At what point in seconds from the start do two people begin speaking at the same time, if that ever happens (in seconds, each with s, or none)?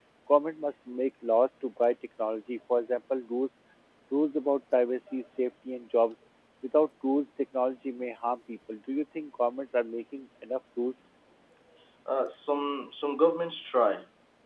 none